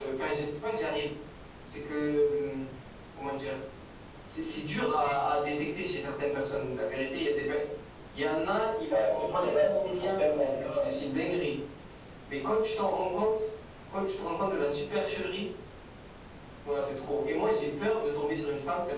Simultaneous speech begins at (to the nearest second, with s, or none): 9 s